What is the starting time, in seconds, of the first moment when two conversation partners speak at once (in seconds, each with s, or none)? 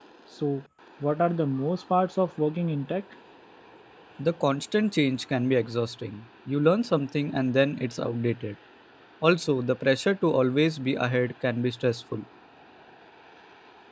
none